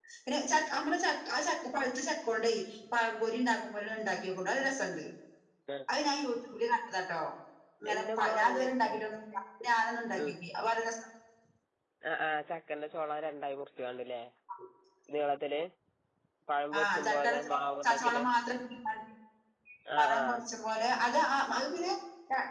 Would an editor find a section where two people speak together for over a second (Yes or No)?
Yes